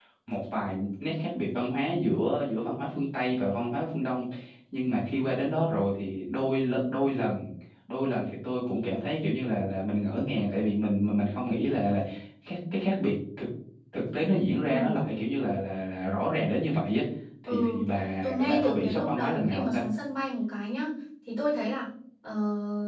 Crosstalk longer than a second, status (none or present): present